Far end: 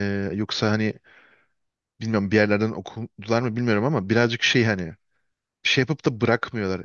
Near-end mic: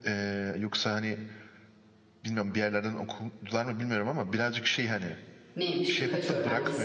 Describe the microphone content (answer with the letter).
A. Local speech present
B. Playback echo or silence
A